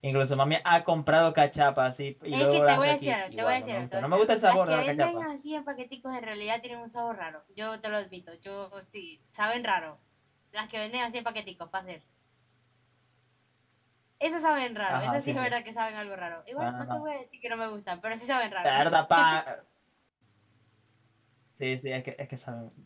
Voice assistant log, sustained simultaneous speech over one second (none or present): present